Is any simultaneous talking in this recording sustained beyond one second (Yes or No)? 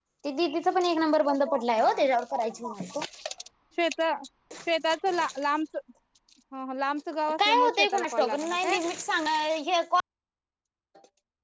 Yes